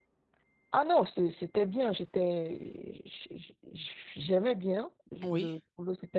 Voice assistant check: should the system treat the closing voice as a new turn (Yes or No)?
No